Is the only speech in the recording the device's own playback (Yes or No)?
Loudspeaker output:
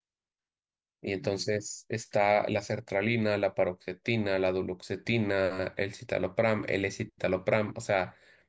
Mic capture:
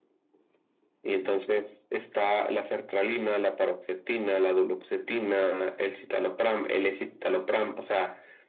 Yes